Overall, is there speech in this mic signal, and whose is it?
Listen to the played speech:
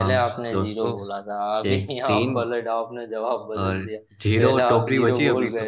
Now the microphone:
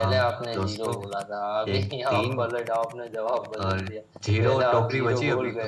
echo only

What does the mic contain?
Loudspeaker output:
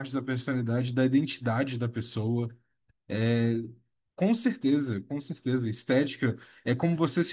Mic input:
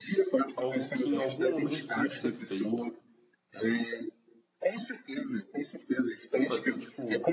both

